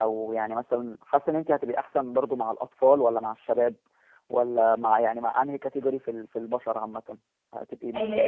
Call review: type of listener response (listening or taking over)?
taking over